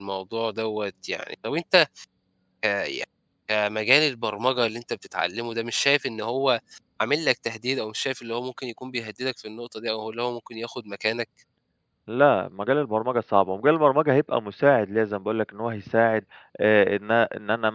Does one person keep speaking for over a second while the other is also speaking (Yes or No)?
No